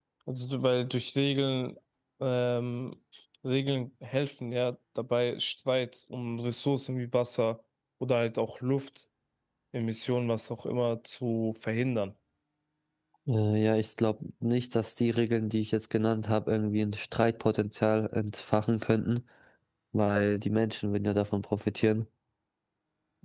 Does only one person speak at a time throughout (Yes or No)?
Yes